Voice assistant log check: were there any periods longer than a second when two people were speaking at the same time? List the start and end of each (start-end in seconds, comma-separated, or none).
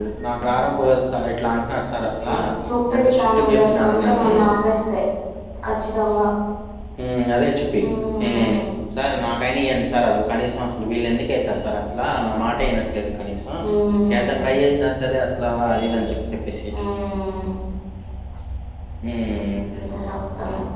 3.0-4.2